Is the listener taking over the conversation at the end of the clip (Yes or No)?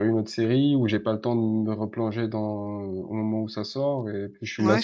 Yes